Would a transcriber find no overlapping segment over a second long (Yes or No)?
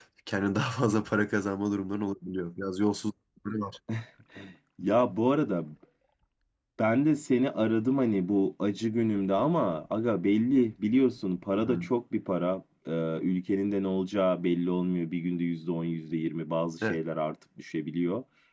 Yes